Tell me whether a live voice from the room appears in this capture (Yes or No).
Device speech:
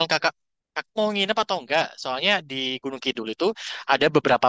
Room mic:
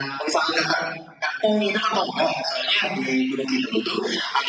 No